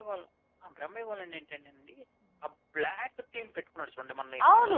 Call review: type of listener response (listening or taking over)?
taking over